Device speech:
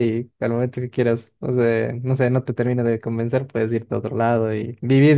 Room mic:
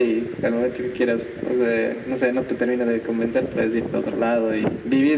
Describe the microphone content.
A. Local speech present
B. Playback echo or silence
B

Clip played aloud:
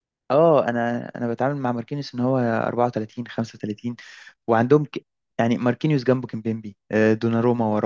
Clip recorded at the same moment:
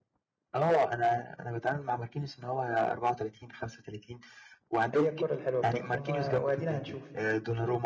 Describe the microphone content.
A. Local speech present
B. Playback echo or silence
A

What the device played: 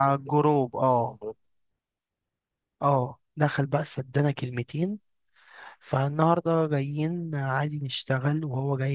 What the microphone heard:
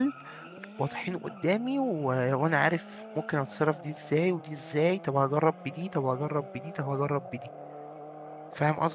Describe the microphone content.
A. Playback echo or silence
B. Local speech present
B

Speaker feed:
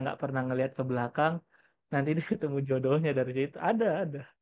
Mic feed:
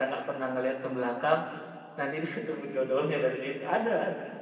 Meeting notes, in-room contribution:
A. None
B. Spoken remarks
A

